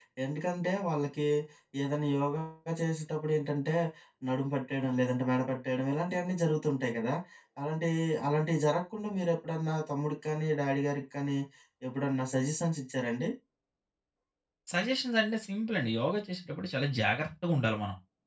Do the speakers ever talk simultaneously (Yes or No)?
No